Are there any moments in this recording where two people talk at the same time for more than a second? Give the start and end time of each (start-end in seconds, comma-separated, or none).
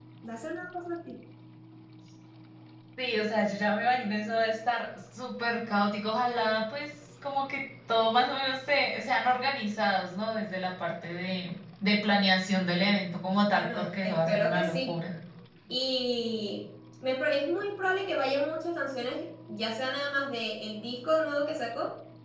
13.5-15.0